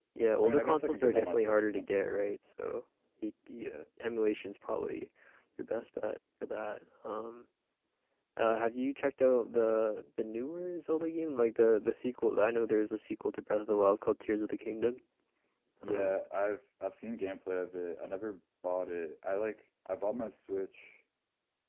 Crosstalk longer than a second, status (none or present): present